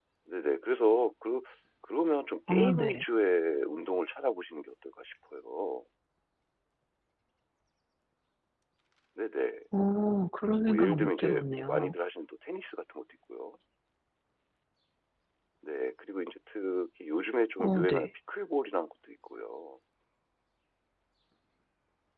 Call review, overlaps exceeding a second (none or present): present